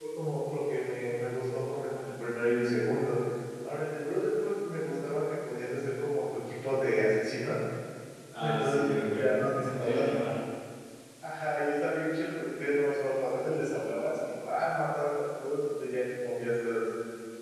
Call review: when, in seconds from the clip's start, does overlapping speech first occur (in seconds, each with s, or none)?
8.4 s